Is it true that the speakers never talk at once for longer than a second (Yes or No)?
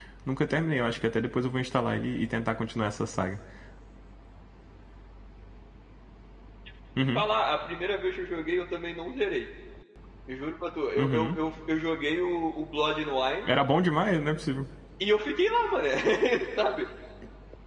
Yes